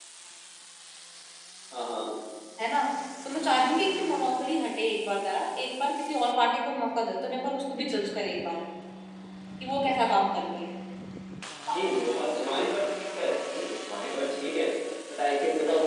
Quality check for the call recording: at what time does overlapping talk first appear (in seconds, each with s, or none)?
none